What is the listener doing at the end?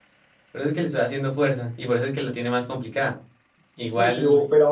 taking over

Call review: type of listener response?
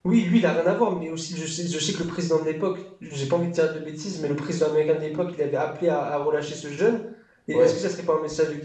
listening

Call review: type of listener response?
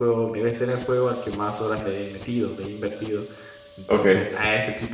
listening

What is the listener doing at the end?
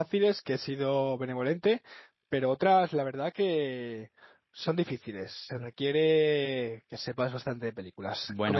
taking over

